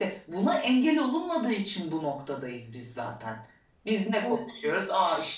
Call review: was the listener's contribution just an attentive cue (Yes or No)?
Yes